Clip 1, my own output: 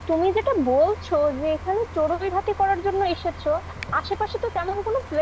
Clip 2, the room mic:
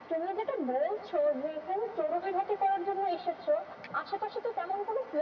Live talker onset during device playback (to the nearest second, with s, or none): none